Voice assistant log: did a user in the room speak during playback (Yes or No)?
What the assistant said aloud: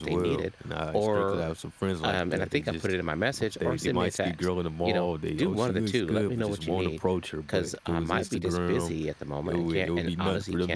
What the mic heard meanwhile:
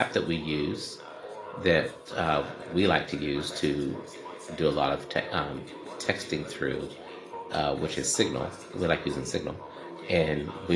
Yes